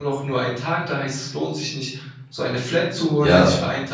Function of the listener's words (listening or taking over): listening